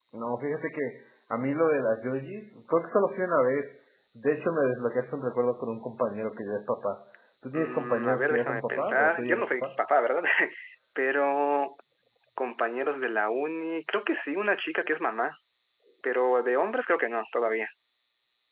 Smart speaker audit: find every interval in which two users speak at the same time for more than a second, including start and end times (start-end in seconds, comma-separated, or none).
7.5-9.7